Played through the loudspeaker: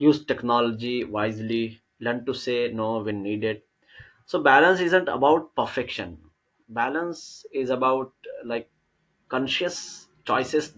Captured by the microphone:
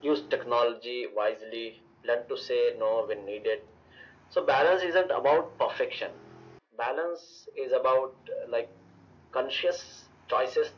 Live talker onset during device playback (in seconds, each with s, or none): none